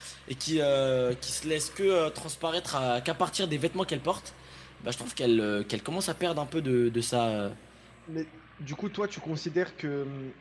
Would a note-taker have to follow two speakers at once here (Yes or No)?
No